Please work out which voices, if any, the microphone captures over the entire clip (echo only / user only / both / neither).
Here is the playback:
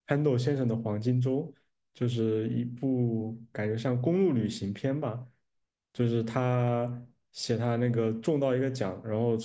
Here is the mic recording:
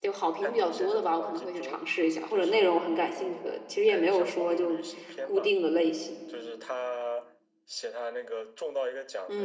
both